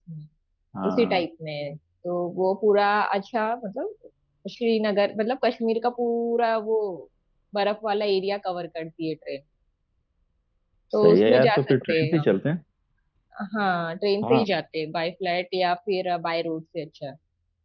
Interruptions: present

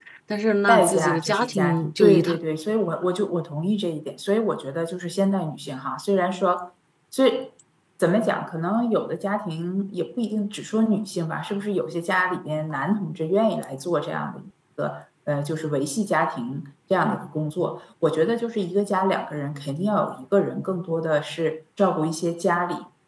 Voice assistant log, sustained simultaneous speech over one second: present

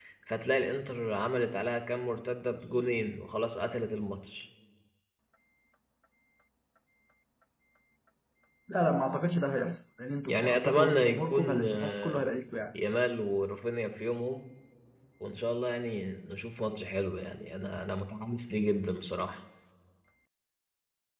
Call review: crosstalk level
present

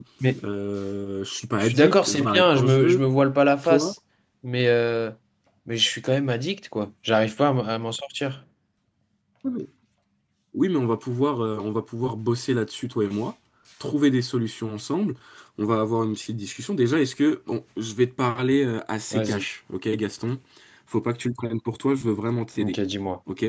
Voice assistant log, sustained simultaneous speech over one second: present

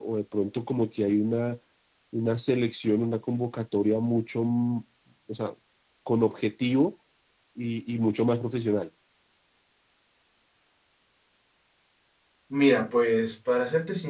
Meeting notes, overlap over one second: none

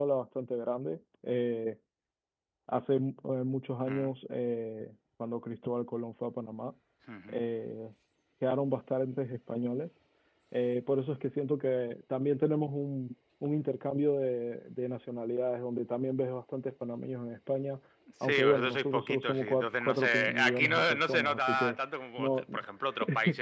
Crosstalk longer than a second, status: present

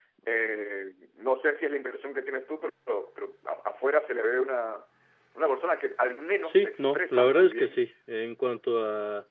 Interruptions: present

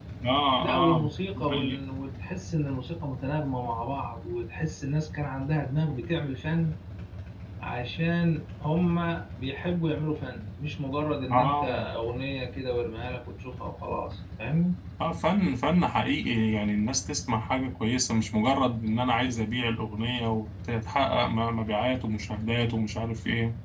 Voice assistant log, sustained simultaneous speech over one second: present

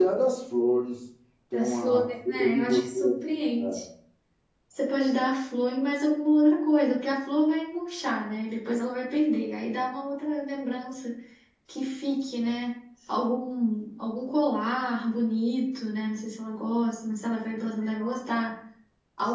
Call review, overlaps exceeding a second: present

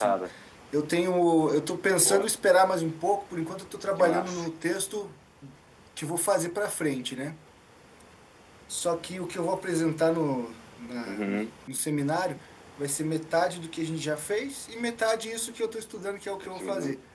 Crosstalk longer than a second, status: none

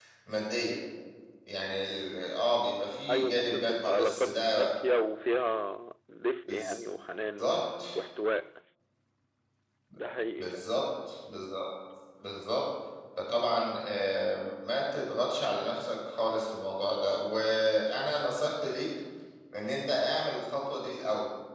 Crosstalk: present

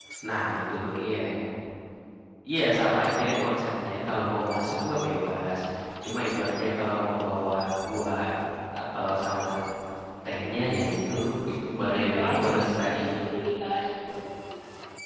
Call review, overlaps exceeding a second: present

